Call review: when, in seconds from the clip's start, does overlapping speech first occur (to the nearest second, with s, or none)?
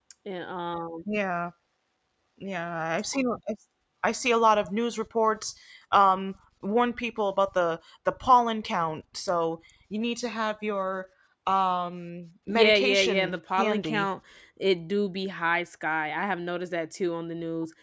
12 s